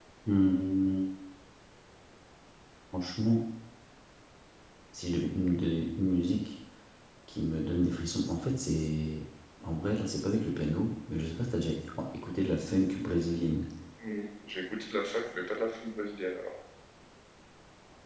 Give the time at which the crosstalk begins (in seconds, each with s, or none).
none